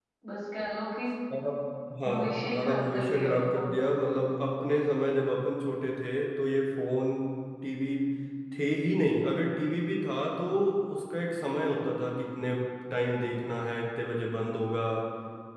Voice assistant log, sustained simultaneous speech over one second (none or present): present